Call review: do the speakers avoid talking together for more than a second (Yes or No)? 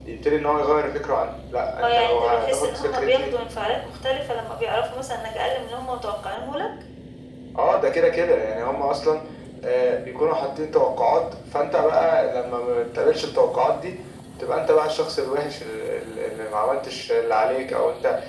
No